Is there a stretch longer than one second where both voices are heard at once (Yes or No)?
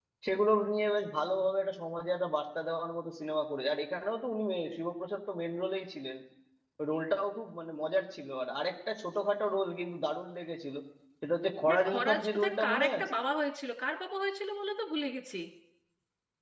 Yes